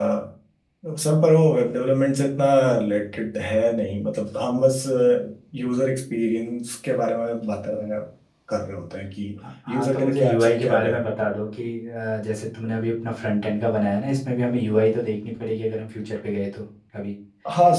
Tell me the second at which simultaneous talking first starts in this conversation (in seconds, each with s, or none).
9.6 s